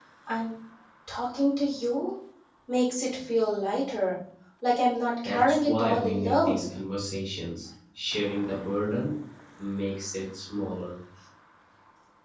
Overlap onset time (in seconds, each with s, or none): 5.2 s